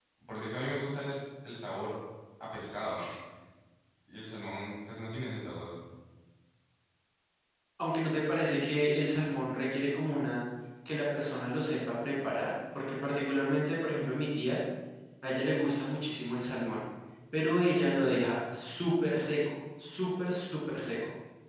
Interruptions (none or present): none